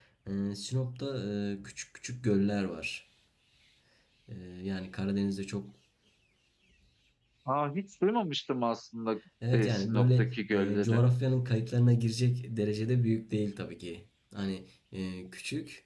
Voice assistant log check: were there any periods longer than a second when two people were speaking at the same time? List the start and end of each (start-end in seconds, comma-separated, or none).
9.5-11.0